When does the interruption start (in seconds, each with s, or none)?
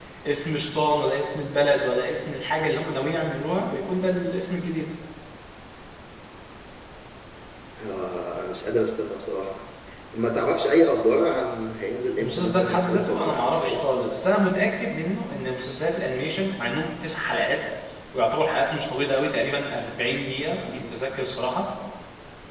12.2 s